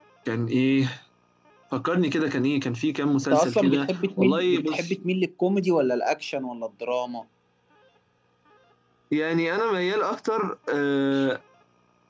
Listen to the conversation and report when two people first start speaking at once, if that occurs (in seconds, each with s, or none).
3.2 s